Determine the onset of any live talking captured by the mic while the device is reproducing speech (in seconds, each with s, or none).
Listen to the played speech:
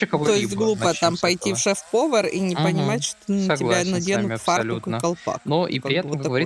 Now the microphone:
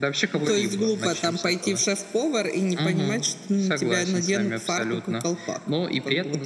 none